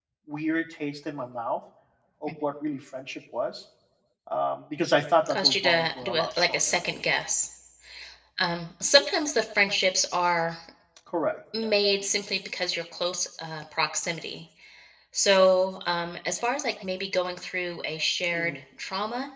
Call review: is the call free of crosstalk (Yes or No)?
No